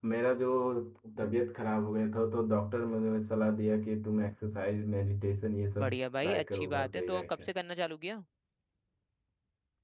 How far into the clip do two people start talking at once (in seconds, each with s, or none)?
5.7 s